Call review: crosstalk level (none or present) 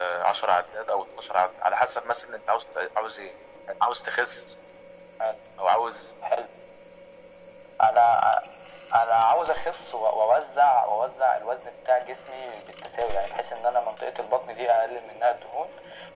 none